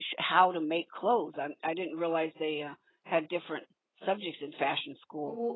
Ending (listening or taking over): taking over